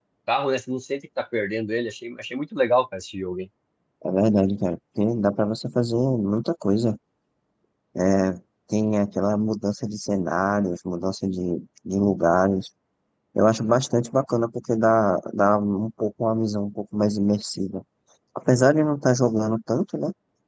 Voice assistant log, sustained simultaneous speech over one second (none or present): none